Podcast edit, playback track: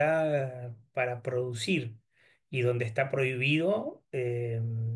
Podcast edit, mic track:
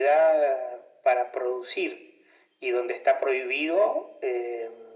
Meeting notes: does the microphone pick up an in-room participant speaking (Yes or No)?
No